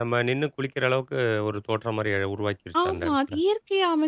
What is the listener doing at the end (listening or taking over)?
taking over